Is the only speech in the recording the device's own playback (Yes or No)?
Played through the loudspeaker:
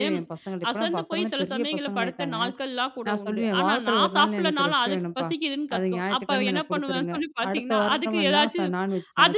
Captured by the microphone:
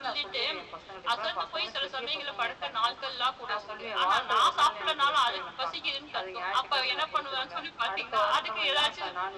Yes